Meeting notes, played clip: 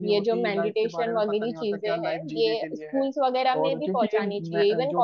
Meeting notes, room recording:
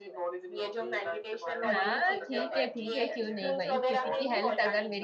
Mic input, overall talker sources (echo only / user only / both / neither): both